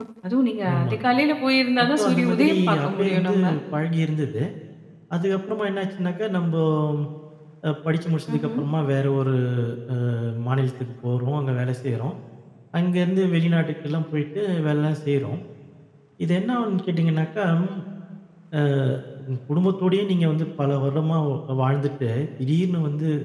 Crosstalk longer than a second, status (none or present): present